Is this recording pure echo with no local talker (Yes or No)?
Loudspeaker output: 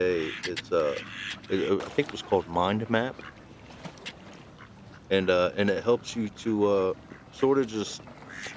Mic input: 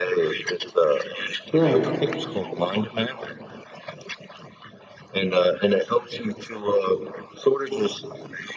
No